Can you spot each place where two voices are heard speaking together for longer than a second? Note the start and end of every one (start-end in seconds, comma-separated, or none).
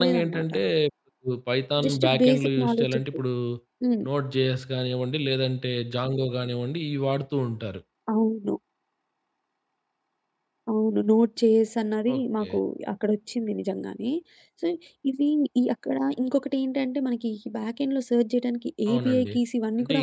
1.8-3.2